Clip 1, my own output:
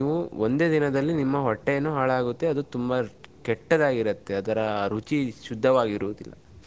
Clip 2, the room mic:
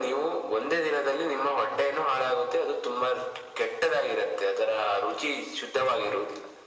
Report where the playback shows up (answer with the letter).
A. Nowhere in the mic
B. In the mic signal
B